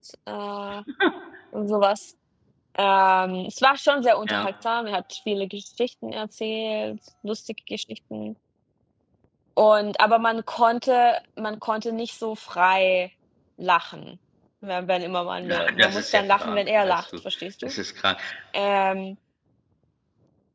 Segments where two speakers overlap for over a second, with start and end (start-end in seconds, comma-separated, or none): 15.4-17.0